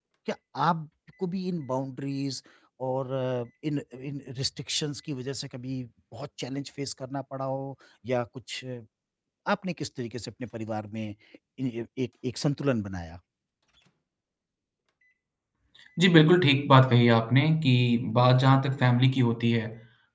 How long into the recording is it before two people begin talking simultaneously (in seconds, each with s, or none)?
none